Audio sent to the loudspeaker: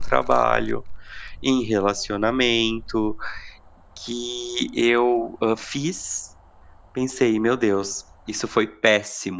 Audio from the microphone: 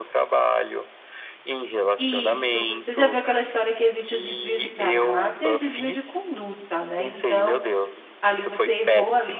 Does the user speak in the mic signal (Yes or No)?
Yes